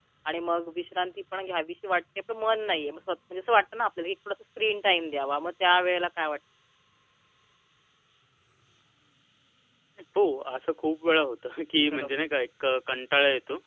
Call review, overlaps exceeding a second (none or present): none